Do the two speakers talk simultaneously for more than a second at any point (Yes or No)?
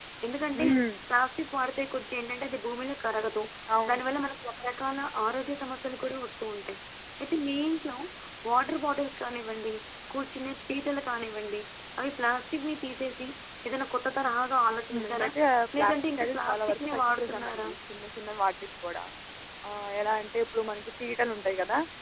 Yes